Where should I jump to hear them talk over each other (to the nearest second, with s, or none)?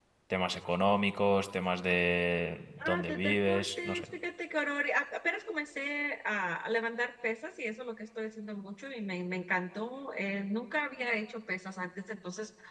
3 s